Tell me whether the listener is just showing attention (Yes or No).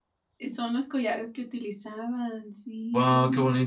No